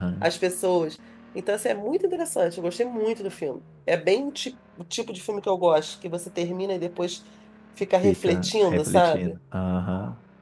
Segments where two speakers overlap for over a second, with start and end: 8.0-9.3

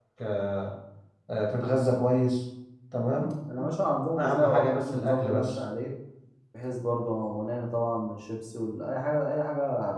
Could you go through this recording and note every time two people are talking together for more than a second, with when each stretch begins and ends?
4.2-5.6

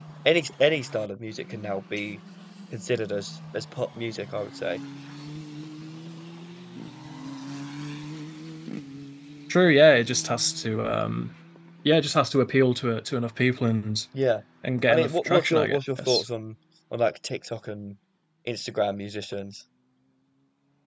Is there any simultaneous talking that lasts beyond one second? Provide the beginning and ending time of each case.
14.9-16.2

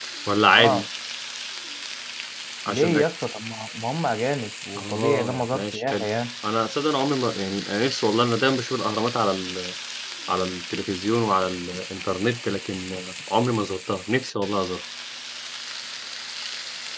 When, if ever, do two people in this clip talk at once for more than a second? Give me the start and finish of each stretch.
4.8-6.0

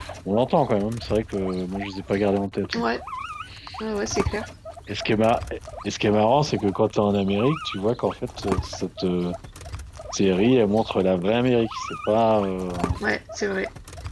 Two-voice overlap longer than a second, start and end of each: none

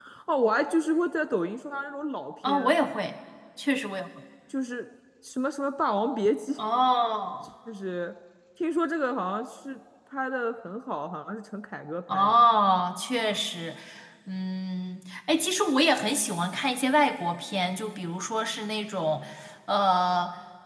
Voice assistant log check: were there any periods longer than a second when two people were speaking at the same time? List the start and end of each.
none

